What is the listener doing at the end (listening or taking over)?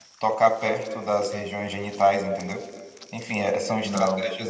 listening